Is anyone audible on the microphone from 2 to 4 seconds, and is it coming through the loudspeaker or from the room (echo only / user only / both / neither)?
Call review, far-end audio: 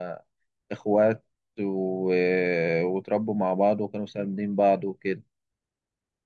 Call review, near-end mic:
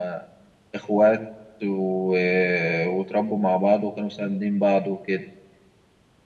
echo only